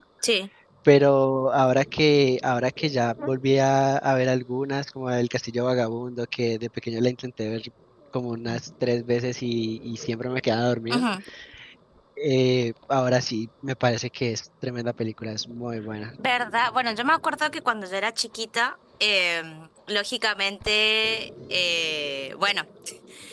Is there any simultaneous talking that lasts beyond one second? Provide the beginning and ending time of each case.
none

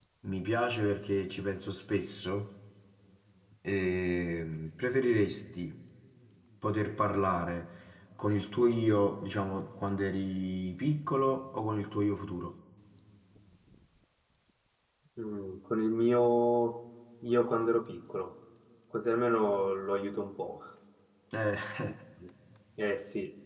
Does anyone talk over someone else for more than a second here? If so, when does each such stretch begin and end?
none

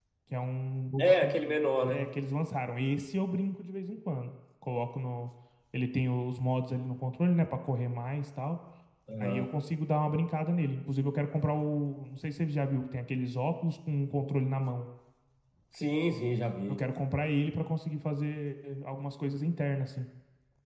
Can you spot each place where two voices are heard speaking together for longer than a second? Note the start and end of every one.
none

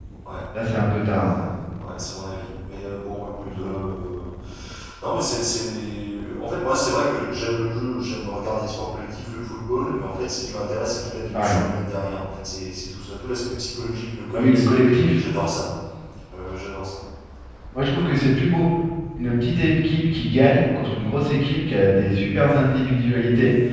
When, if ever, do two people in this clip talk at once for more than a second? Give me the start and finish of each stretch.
none

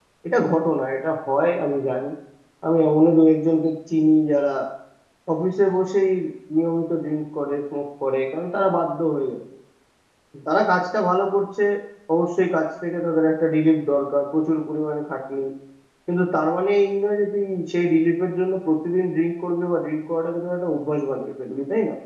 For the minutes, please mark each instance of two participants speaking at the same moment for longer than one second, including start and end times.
none

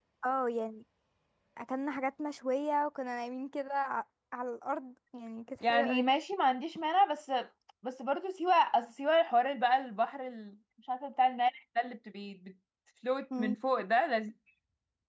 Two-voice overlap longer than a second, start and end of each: none

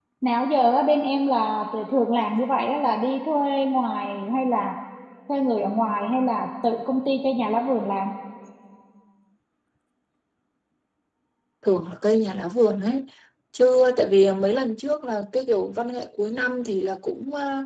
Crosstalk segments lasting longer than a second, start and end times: none

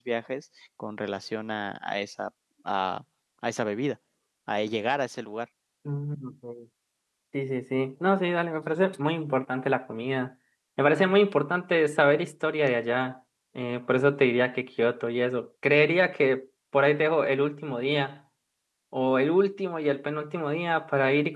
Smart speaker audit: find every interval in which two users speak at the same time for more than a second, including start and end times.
none

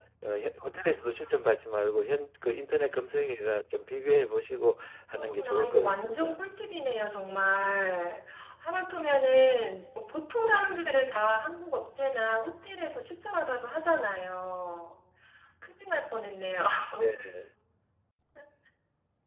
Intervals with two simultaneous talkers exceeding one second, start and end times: 5.2-6.4

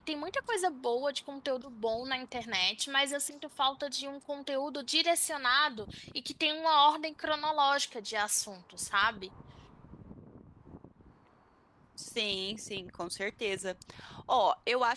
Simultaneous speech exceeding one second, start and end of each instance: none

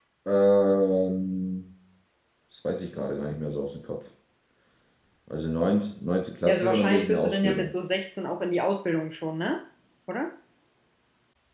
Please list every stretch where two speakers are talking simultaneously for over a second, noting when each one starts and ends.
6.5-7.7

